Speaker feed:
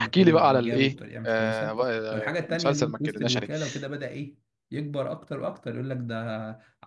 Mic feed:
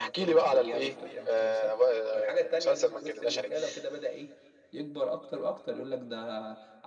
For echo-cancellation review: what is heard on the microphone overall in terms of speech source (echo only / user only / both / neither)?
echo only